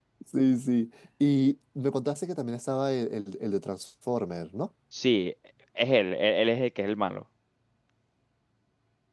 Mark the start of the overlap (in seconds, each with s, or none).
none